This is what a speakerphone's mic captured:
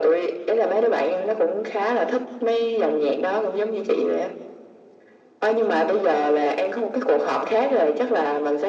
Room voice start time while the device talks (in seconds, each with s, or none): none